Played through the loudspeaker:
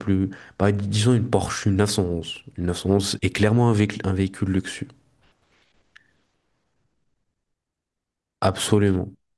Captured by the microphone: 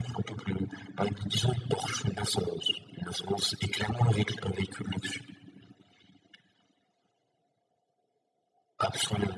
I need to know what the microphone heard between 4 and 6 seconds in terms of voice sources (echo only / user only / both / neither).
echo only